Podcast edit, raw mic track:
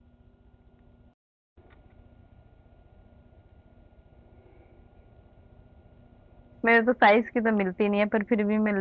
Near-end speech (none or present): present